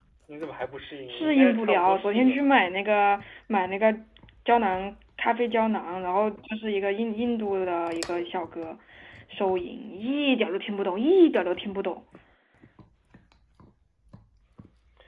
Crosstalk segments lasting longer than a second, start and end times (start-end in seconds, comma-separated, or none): 1.1-2.5